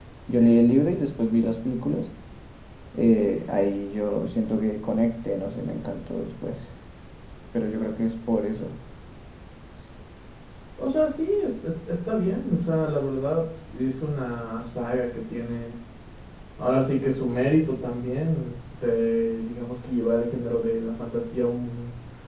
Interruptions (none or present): none